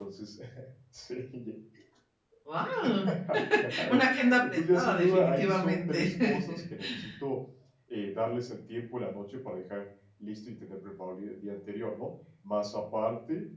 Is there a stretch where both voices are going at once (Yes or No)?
Yes